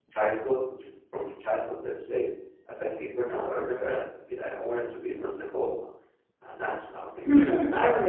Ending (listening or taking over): taking over